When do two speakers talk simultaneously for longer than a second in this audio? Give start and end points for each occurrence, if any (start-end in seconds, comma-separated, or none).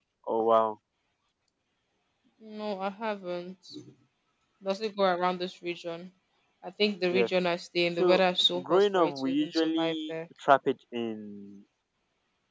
8.6-10.1